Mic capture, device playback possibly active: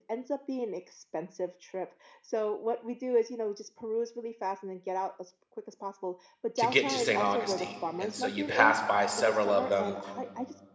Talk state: both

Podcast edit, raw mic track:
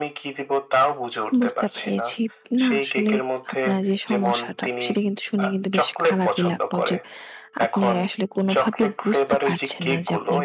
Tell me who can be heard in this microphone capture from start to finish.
both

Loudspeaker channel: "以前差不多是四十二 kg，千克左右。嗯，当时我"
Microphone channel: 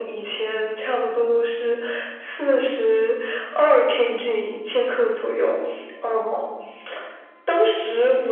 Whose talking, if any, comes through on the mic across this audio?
echo only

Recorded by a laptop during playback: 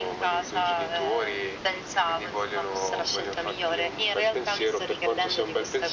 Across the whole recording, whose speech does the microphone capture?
echo only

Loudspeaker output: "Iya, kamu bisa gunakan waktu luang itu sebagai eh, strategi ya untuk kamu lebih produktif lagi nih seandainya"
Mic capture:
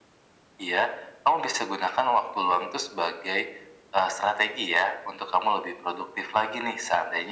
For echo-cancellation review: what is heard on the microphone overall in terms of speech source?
echo only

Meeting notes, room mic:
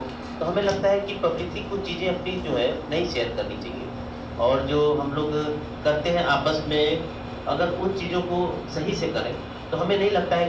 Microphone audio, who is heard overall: echo only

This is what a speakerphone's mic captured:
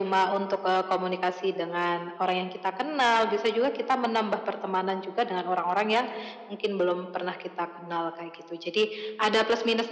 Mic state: echo only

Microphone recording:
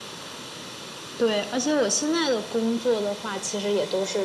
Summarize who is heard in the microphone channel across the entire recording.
echo only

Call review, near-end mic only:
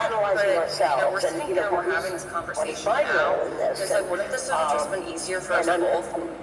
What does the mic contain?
echo only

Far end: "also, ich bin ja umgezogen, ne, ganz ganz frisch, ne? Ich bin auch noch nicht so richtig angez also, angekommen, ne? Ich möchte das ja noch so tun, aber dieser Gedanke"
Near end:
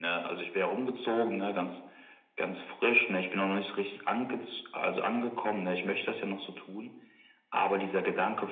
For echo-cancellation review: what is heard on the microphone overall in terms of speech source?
echo only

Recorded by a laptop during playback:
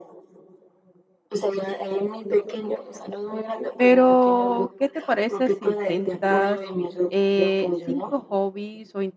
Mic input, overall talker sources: both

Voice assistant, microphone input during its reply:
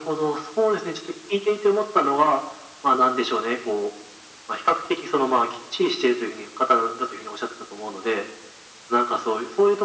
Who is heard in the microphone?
echo only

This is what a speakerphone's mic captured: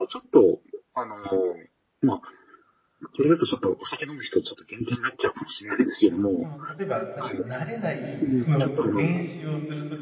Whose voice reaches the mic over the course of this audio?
both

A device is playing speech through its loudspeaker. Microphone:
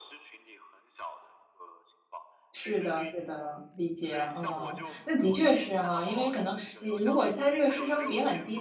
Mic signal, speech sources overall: both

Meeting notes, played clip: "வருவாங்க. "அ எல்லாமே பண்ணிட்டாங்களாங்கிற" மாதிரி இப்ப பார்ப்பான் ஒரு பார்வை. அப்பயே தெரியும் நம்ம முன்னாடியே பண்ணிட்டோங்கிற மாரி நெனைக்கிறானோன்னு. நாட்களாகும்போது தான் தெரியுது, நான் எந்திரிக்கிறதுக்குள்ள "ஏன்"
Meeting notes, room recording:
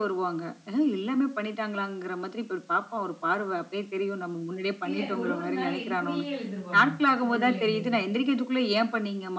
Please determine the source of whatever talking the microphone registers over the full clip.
both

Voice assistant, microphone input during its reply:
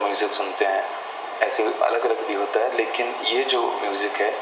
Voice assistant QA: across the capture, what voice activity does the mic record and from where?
echo only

